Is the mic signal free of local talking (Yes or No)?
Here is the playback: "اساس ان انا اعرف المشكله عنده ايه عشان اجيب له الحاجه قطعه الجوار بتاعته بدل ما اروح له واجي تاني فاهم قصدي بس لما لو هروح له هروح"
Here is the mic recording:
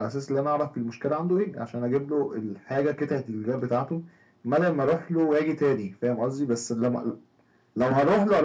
Yes